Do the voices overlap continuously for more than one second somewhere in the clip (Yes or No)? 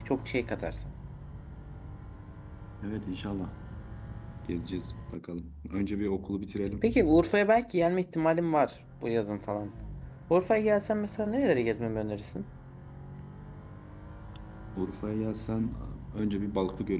No